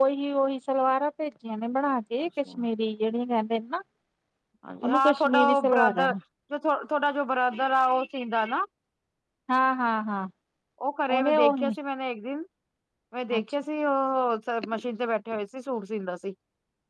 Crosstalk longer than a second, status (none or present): present